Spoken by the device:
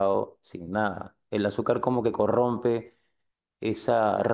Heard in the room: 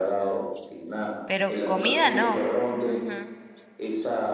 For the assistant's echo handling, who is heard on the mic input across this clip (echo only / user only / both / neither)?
both